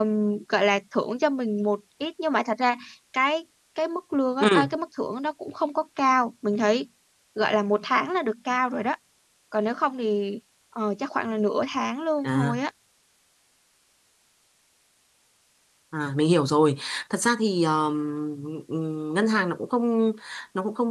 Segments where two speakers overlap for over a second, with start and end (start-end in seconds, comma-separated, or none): none